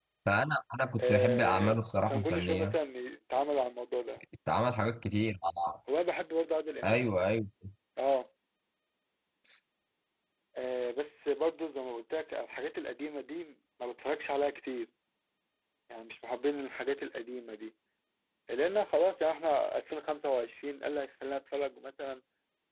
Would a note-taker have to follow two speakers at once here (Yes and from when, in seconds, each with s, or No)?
Yes, from 1.0 s